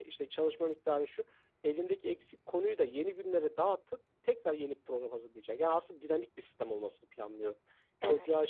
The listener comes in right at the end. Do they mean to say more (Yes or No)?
No